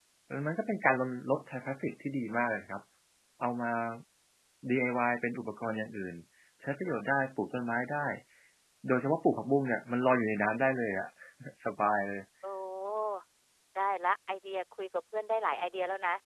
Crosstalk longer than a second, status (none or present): none